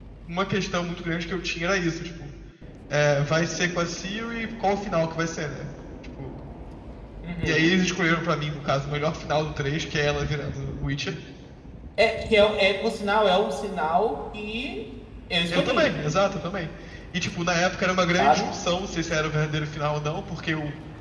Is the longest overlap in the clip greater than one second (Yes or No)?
No